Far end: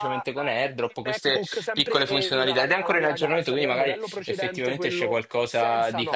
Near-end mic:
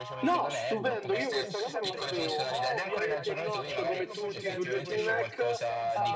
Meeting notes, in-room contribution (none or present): present